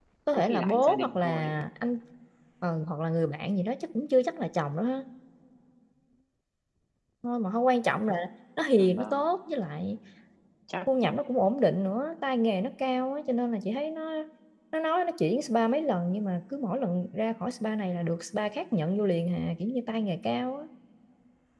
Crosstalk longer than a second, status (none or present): present